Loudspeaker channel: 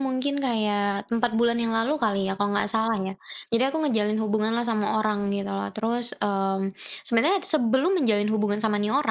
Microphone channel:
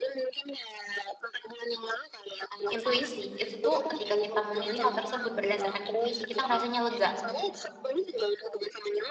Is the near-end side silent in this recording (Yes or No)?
No